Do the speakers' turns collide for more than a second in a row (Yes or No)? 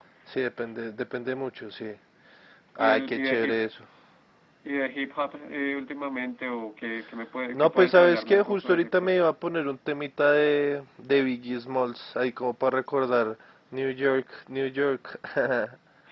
Yes